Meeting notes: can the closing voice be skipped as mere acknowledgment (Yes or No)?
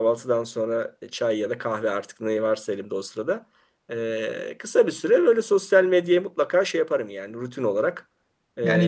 No